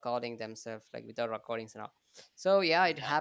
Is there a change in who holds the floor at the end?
No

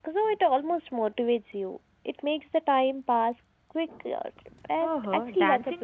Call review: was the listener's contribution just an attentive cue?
No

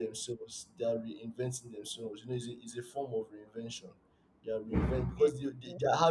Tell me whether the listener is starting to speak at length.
No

